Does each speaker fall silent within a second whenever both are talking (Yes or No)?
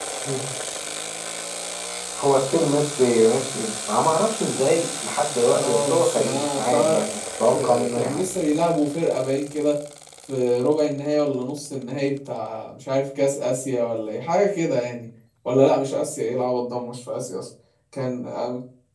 No